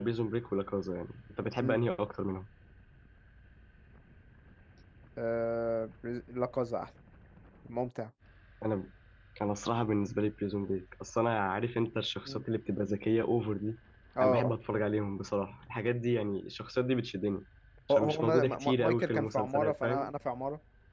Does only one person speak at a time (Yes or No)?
No